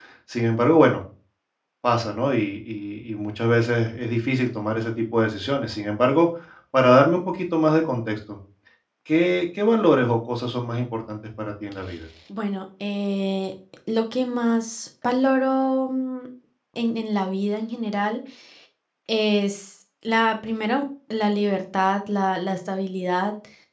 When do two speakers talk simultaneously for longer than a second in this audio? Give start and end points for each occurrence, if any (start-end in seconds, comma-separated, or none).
none